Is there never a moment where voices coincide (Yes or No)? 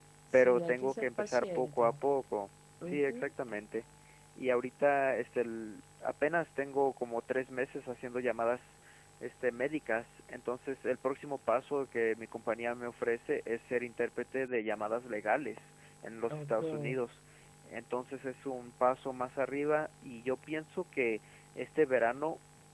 No